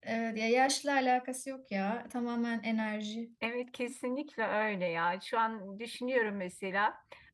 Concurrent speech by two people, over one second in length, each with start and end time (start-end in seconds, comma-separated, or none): none